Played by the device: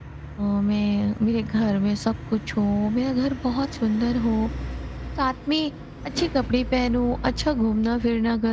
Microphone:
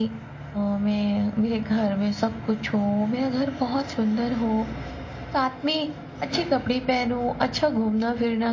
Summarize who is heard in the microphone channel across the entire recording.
echo only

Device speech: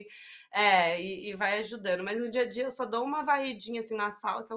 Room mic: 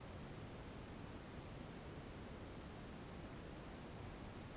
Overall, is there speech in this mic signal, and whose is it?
neither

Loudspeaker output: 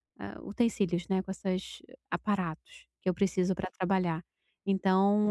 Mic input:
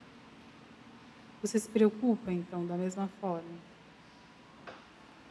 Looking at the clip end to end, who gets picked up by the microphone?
user only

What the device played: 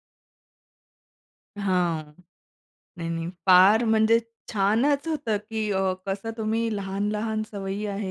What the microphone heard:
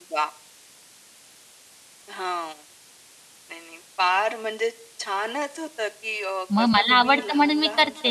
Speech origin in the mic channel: both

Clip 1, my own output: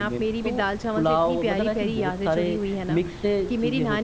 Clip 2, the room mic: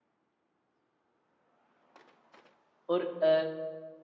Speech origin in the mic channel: user only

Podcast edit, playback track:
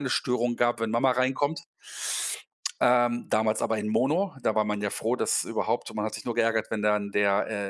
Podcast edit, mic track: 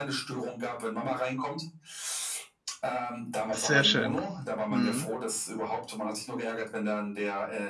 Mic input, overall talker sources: both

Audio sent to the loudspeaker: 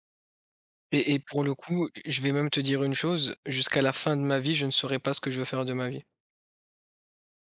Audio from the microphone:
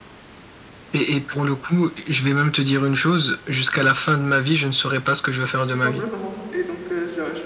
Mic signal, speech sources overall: both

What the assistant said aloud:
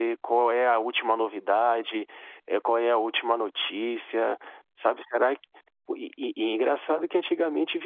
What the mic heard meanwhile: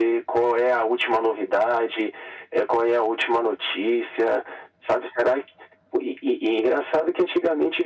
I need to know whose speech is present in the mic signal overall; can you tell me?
echo only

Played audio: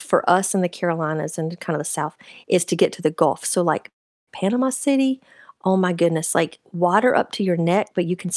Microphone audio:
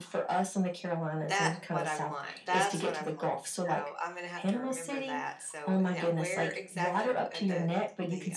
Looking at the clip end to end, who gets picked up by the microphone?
both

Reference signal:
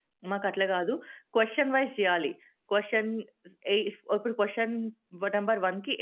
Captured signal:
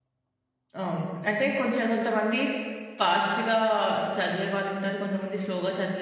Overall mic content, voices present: user only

